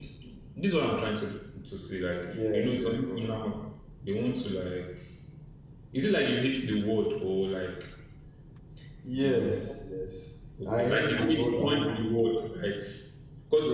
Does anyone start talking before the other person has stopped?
Yes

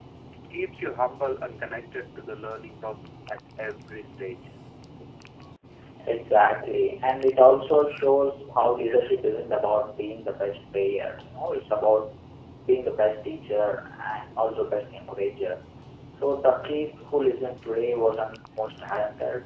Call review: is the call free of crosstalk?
Yes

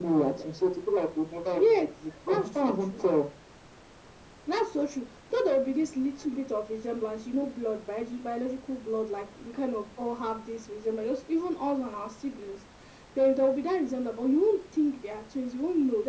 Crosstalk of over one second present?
Yes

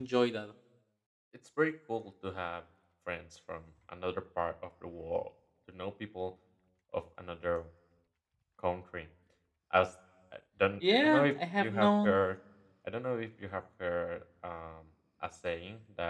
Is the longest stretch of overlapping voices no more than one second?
No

